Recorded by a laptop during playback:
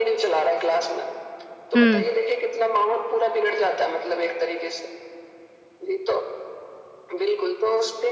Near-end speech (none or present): present